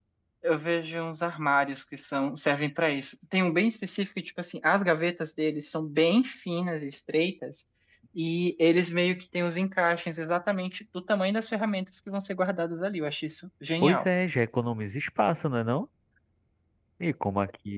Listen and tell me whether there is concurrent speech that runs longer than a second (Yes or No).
No